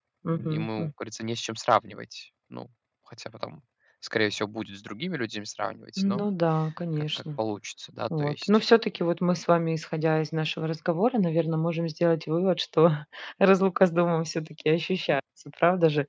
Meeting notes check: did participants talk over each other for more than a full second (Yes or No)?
No